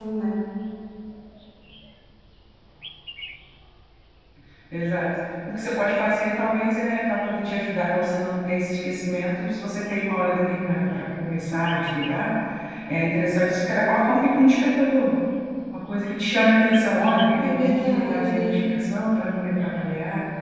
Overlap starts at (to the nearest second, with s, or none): 17 s